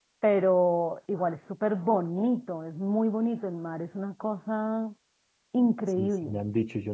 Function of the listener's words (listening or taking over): taking over